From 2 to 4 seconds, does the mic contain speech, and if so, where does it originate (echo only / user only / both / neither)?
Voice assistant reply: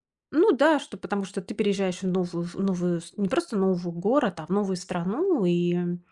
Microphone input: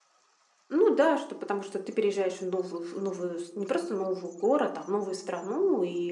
echo only